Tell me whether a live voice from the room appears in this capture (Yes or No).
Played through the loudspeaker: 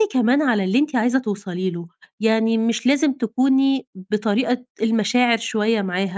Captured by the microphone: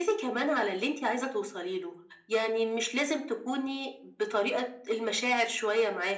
No